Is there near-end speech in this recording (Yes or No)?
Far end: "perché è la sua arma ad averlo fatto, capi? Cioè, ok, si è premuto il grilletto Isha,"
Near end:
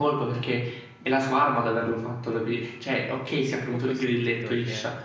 Yes